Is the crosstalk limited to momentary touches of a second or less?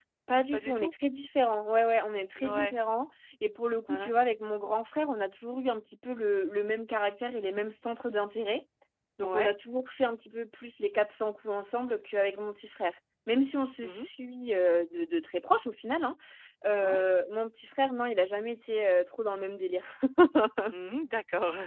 Yes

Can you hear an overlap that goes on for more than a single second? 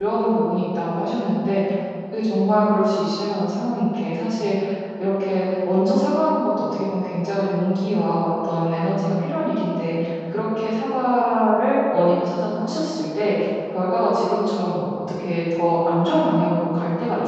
No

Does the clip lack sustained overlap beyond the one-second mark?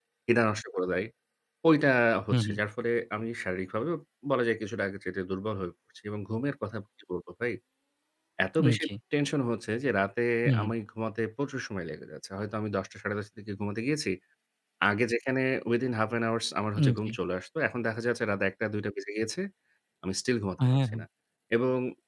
Yes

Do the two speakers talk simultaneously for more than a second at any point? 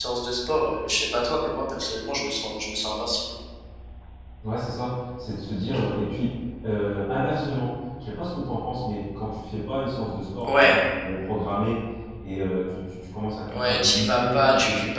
Yes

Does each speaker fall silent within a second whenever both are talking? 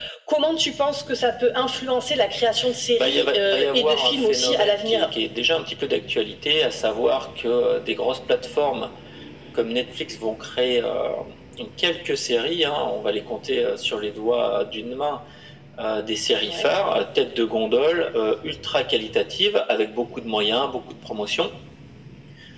No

